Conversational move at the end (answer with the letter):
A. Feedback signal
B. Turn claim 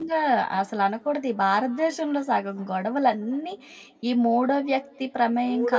B